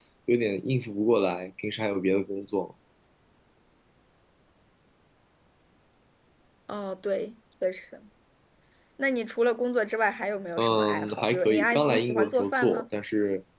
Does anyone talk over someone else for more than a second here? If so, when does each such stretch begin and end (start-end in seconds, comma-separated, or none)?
10.6-12.8